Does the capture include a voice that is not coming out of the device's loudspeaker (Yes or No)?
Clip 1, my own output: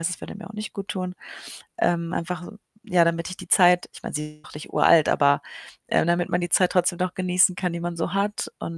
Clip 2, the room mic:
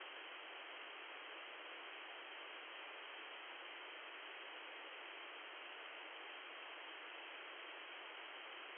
No